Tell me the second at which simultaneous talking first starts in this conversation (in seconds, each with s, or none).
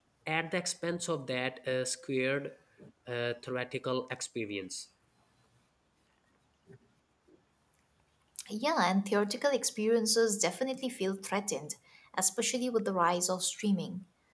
none